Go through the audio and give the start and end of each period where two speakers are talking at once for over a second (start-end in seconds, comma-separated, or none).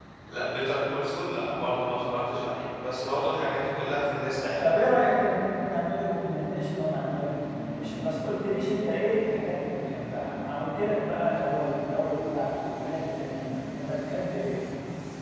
none